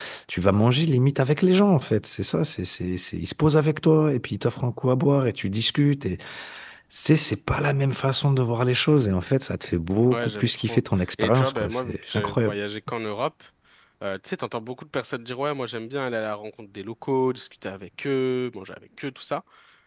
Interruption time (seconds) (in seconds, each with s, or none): 10.1 s